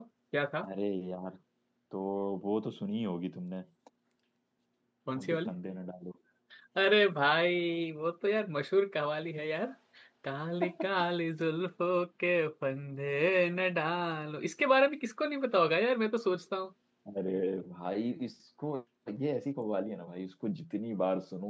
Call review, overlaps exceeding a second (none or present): none